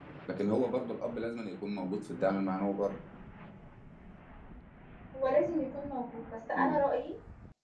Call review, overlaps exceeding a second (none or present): none